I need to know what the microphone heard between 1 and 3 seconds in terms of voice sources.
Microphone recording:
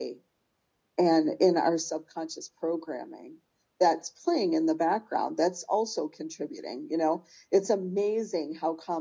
echo only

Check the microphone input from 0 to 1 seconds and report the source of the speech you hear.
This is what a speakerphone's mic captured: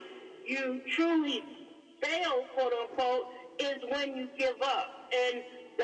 echo only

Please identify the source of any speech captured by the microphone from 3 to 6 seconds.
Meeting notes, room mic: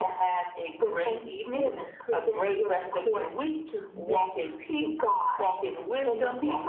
echo only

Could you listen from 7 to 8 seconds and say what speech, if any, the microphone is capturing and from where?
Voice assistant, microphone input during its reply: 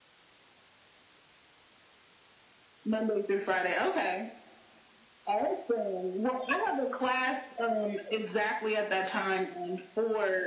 echo only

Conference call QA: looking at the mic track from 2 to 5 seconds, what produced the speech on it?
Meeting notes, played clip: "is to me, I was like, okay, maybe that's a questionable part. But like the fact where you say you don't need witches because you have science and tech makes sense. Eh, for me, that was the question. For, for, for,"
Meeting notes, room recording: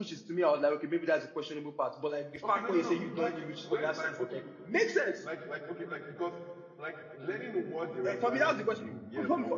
both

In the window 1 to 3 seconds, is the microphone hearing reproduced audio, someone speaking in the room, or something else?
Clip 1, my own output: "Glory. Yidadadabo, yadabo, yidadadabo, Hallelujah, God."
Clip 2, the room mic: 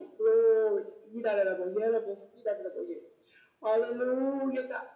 echo only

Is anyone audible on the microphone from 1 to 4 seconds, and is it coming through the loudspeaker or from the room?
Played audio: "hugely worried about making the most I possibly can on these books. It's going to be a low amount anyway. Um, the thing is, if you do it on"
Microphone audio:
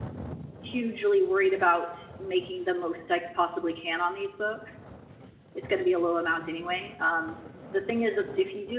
echo only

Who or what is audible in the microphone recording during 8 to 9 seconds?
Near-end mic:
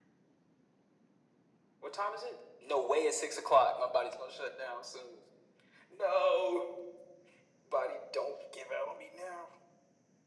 echo only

